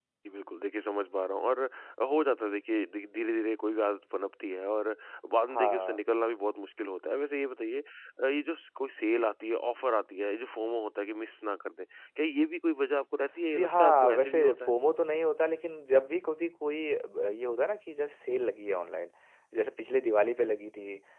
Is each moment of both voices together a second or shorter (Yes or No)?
No